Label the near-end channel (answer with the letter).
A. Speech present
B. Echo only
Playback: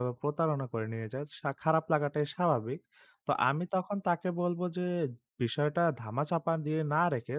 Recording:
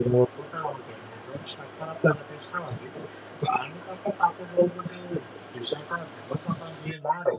B